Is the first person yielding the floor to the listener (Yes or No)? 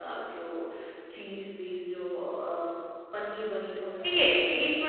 Yes